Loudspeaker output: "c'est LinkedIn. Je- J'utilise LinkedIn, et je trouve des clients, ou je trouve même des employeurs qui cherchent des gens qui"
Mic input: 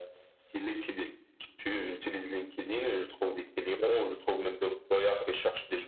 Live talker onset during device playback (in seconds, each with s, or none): none